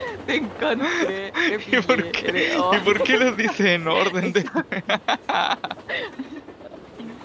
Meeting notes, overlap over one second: present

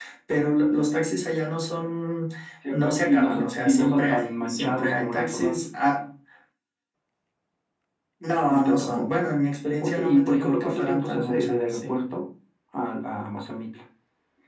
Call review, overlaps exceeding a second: present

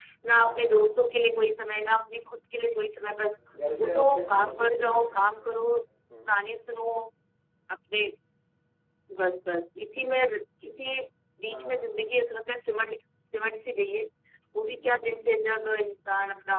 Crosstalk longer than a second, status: present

